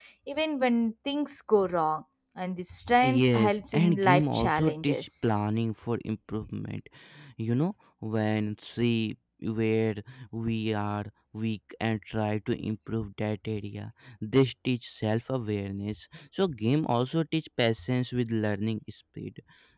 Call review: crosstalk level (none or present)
present